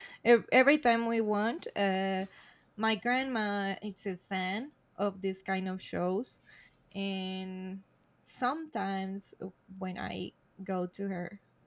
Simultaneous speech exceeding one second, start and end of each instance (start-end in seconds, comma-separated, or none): none